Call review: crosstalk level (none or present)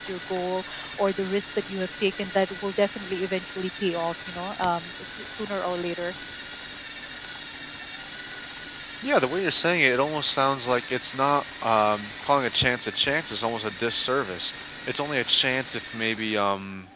none